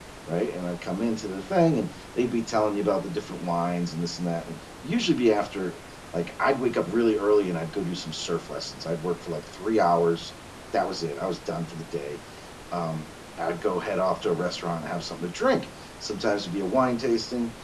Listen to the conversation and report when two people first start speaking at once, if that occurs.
none

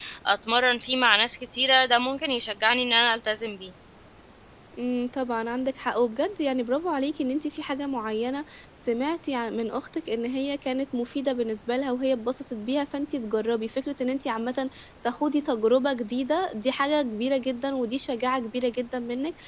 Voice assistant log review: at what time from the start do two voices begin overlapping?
none

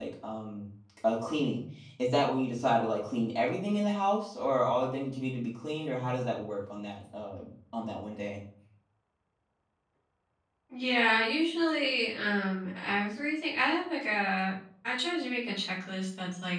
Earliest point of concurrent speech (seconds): none

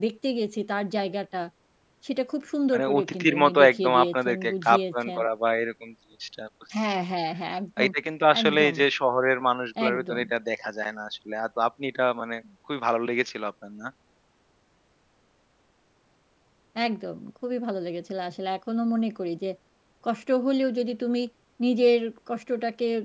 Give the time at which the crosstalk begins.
2.7 s

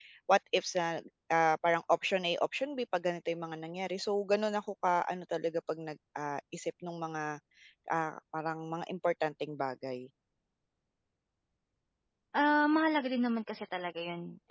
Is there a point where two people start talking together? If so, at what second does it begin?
none

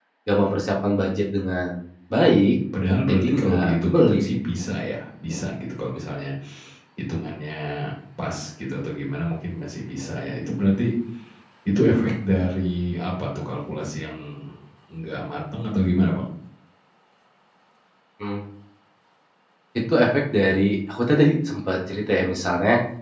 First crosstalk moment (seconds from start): 3.1 s

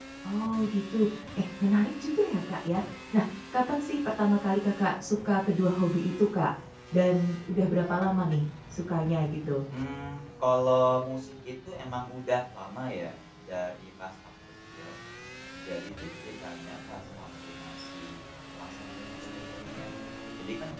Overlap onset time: none

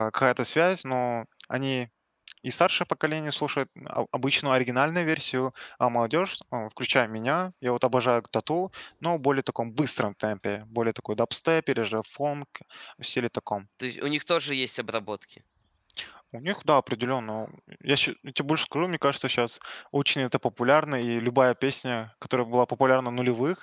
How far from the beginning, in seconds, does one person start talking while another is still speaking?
none

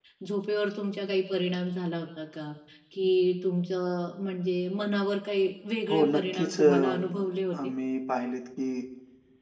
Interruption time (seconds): 5.9 s

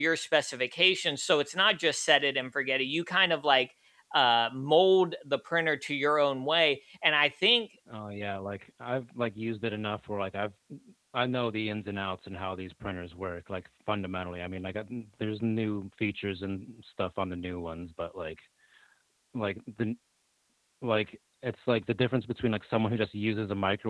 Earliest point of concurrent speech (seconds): none

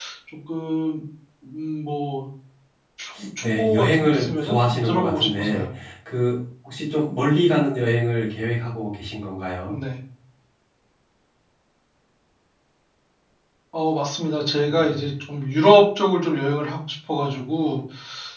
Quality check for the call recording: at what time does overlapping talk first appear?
3.4 s

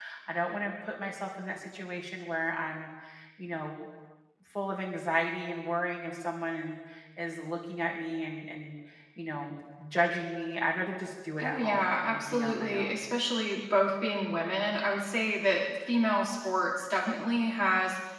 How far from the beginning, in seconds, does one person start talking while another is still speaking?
11.4 s

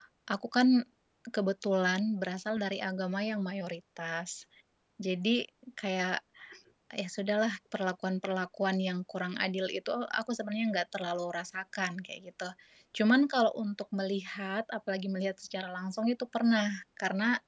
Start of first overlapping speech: none

